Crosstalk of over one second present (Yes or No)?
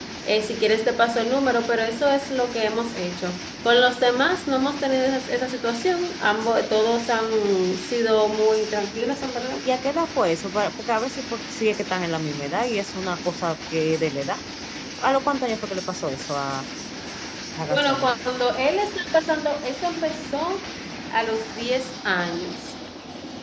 No